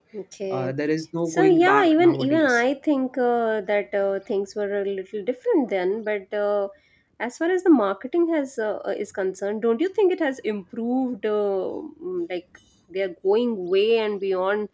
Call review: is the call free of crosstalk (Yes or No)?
No